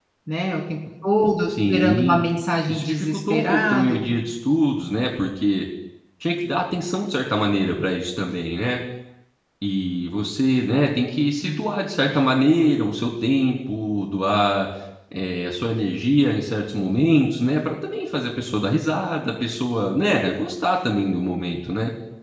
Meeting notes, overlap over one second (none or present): present